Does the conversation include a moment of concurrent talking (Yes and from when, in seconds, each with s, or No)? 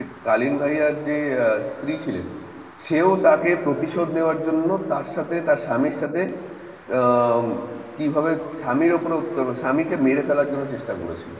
No